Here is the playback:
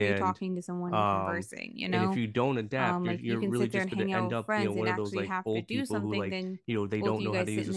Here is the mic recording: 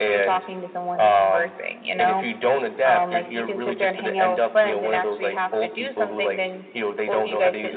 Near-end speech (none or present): none